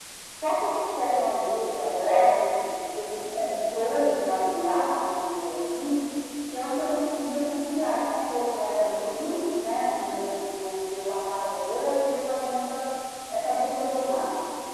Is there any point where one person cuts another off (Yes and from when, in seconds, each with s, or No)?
No